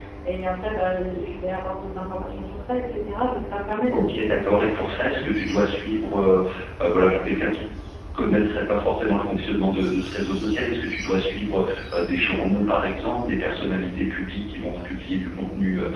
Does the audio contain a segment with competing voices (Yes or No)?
Yes